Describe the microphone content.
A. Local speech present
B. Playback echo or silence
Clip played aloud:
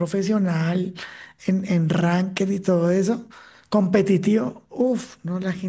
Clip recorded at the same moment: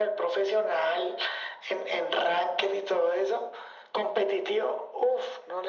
B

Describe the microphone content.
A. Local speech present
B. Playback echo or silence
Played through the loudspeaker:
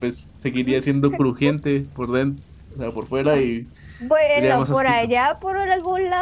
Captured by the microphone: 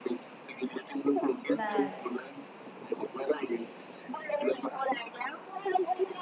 A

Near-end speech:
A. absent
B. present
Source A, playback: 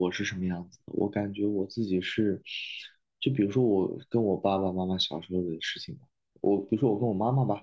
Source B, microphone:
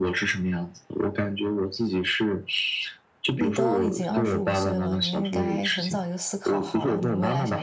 B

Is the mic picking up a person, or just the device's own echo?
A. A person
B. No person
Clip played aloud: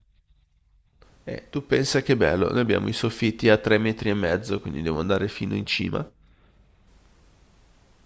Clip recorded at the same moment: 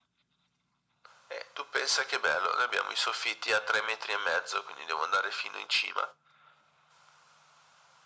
B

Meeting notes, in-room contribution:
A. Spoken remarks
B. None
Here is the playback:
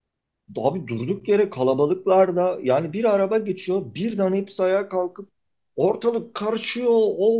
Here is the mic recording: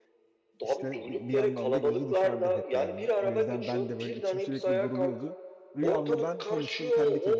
A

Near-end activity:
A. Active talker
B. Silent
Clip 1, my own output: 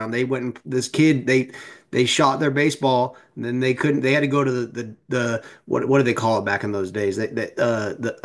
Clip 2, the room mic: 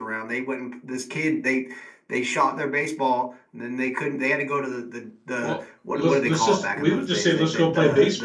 A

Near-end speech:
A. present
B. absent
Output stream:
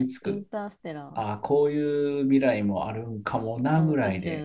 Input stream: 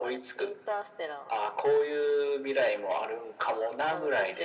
B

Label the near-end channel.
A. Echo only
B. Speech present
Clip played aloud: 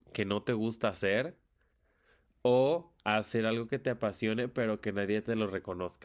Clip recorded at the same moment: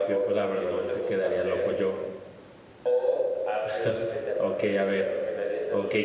B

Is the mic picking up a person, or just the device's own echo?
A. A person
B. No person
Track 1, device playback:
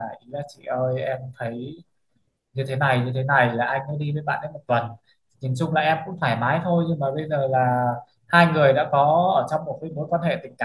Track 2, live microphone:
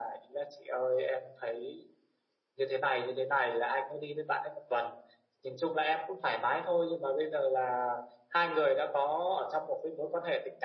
B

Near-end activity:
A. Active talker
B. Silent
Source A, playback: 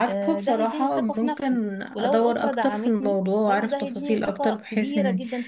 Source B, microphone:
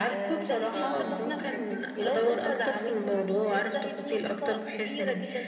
A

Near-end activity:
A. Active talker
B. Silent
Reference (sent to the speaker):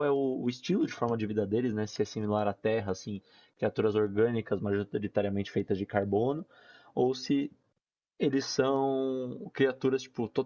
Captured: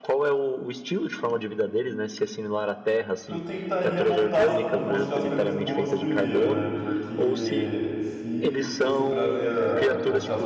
A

